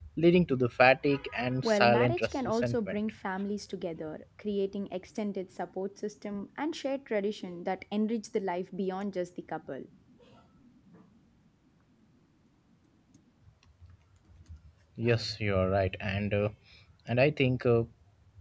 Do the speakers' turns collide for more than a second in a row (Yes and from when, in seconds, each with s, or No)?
Yes, from 1.6 s